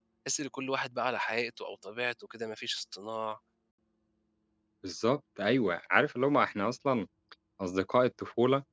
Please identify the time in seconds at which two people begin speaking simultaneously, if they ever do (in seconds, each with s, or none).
none